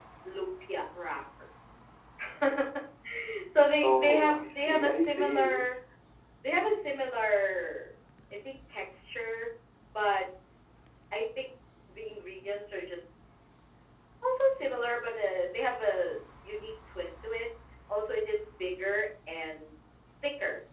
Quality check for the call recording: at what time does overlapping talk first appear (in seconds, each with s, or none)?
3.8 s